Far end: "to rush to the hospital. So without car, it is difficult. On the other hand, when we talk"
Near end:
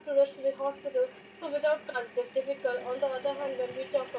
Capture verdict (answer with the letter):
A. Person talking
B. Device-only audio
B